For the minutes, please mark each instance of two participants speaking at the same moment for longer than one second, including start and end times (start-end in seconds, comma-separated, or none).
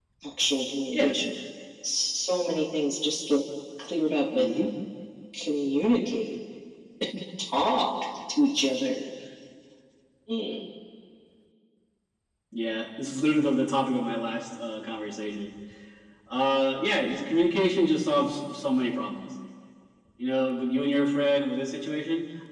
none